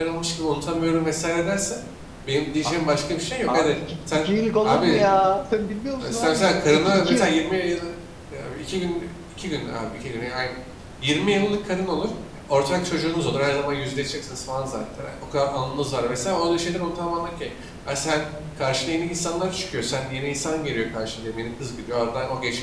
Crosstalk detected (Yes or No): Yes